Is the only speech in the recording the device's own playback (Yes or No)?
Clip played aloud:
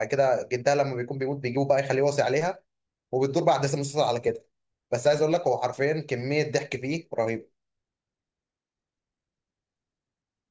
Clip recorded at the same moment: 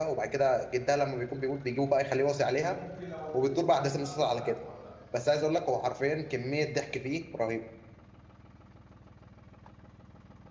No